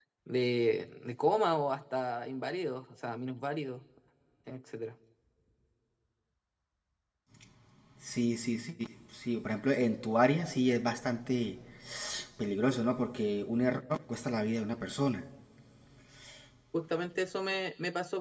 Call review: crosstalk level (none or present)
none